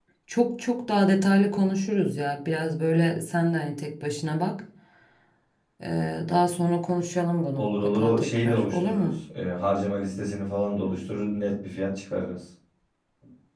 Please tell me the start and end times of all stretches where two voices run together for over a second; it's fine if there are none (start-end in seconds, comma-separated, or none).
7.6-9.1